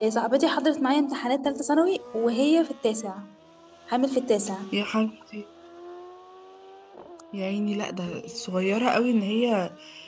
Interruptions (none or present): none